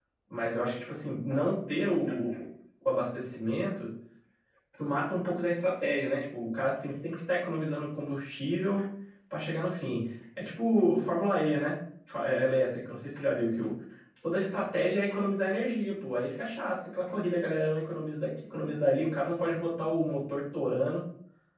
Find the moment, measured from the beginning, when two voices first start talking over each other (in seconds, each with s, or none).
none